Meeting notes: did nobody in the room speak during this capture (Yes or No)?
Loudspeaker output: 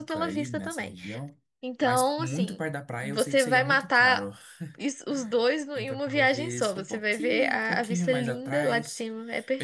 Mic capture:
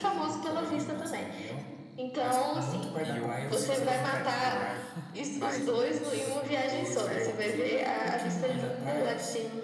No